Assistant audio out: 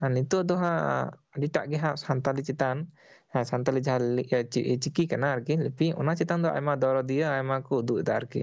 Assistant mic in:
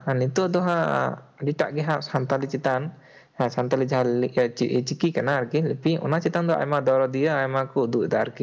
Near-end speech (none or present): none